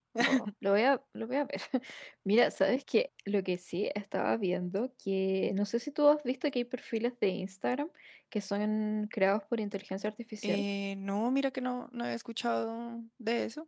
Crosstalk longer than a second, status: none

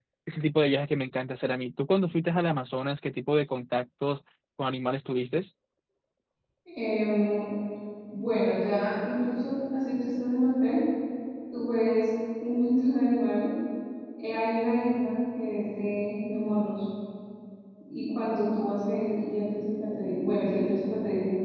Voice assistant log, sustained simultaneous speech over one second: none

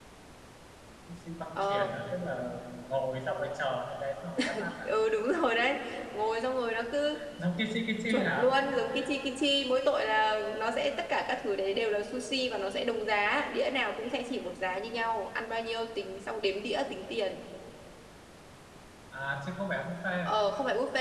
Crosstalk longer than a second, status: none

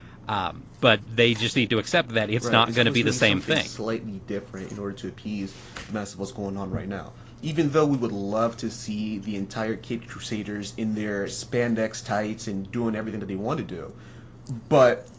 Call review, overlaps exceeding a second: present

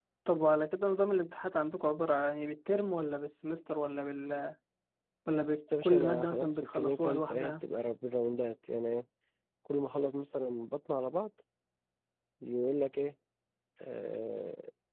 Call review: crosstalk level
present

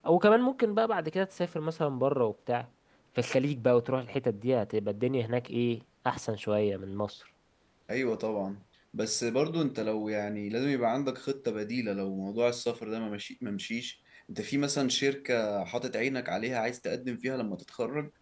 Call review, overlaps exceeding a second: none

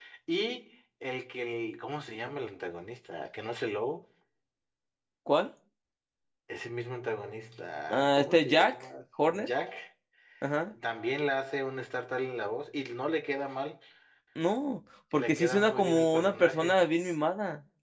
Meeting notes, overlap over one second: present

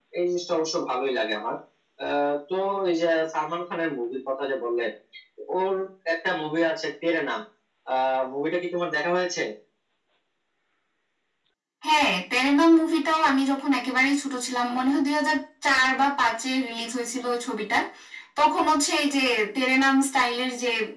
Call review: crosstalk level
none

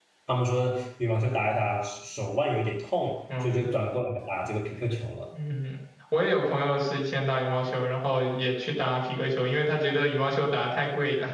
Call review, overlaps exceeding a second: none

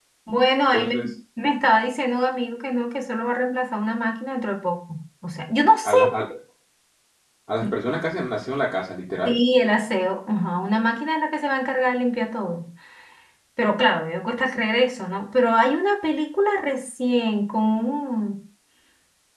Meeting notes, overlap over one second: none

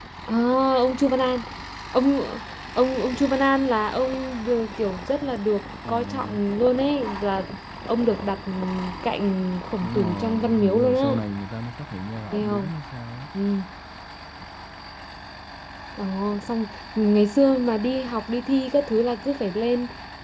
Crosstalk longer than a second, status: present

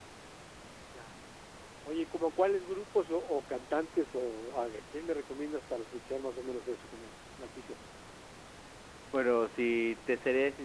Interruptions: none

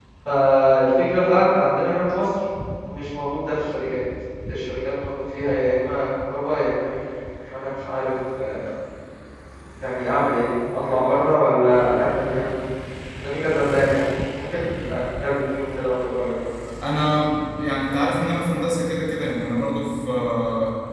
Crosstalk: none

